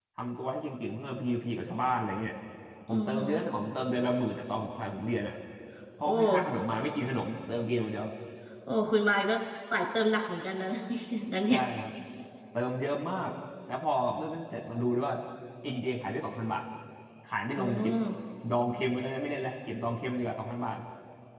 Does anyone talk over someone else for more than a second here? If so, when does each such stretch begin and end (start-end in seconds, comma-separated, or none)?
none